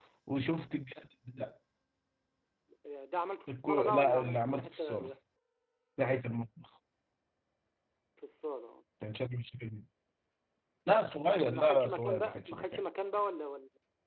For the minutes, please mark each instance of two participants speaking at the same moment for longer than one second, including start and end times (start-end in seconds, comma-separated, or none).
3.5-5.1, 11.2-12.8